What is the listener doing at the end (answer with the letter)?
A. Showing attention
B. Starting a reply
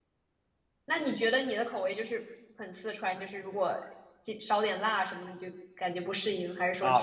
B